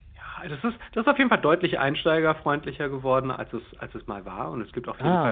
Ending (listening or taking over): listening